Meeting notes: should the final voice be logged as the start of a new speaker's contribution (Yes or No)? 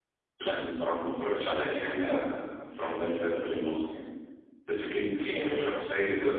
No